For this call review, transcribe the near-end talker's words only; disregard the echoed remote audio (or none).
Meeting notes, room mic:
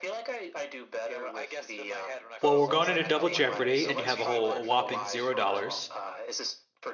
Well, we're going into double jeopardy, and you have a whole a whopping zero dollars.